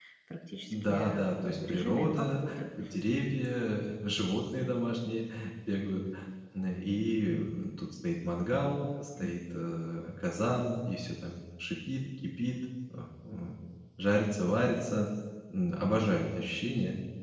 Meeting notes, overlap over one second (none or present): present